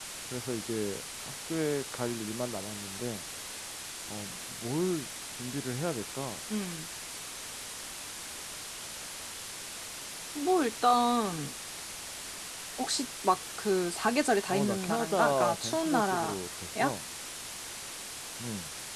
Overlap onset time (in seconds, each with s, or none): 14.5 s